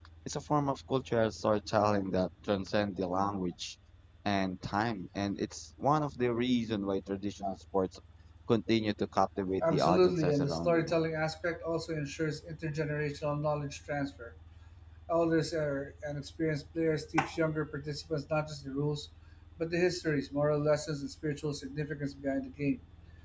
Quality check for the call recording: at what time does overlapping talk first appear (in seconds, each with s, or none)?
9.6 s